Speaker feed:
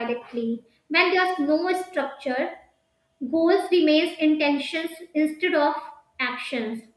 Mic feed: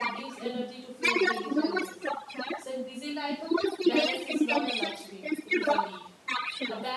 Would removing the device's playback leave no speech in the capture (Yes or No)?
No